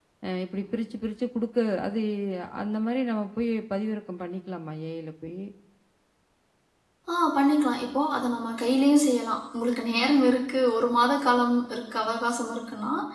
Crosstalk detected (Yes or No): No